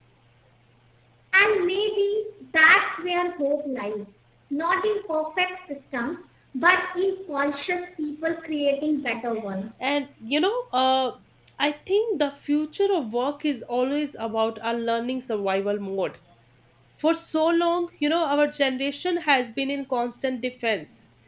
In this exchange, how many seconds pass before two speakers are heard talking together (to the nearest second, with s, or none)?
none